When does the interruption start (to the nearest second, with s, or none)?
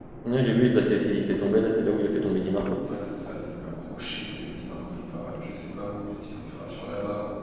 none